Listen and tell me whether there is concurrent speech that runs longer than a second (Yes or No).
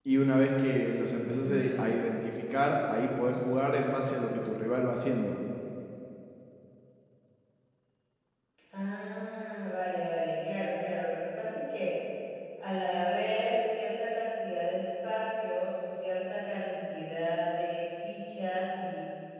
No